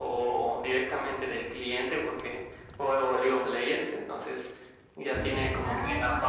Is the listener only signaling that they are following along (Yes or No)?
Yes